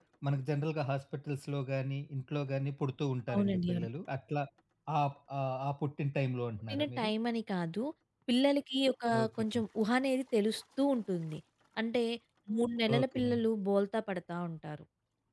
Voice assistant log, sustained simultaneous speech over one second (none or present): none